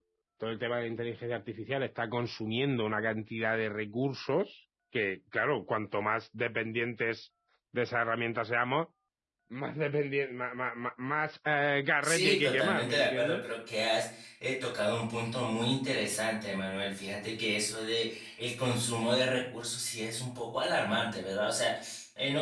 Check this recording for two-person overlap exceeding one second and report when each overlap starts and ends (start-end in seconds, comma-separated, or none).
12.0-13.4